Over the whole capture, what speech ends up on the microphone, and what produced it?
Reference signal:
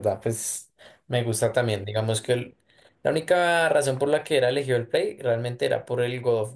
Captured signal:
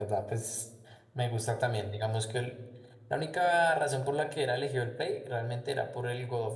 echo only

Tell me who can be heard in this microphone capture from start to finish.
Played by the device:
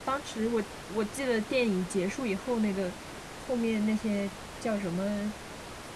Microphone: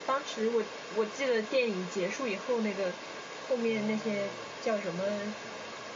both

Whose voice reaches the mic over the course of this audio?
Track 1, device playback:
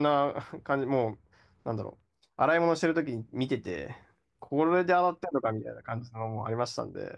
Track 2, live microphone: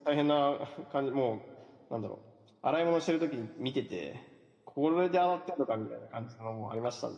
echo only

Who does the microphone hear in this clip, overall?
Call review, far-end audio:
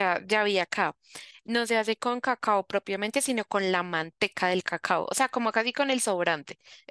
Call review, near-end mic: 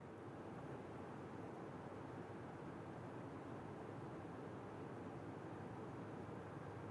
neither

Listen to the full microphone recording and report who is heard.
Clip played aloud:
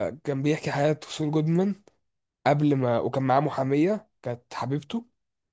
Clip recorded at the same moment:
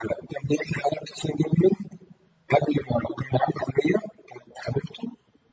echo only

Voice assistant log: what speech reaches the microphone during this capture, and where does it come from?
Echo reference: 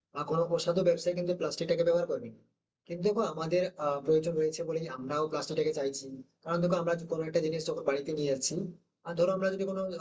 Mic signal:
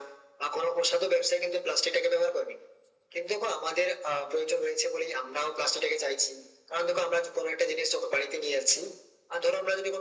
echo only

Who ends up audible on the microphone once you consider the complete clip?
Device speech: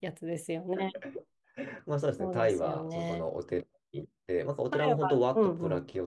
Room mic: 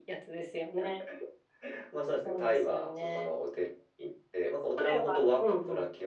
echo only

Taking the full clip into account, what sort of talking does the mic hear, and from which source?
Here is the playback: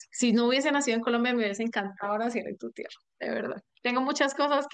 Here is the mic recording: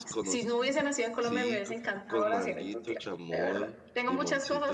both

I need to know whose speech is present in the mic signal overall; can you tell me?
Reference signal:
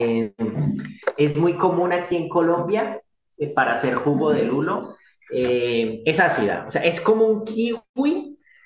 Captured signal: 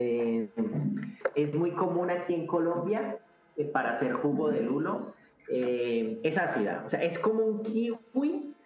echo only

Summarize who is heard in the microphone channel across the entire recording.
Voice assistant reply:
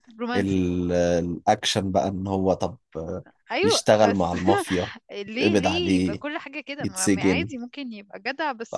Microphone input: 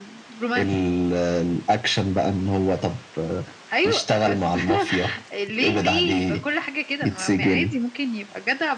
echo only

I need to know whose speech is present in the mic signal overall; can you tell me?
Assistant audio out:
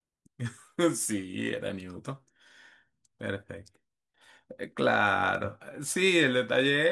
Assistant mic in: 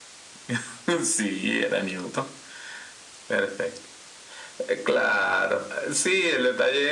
echo only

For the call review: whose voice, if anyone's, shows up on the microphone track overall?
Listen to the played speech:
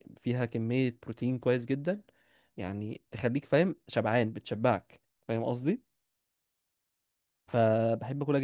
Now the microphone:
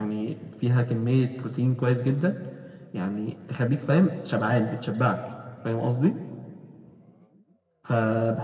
echo only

